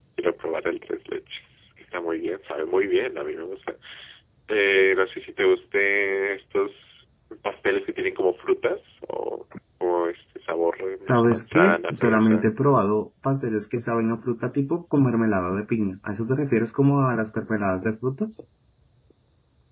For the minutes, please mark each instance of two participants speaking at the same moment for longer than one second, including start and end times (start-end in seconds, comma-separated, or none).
11.1-12.5